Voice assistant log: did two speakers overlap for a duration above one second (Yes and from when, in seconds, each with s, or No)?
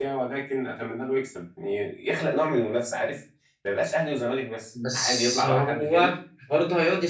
Yes, from 4.8 s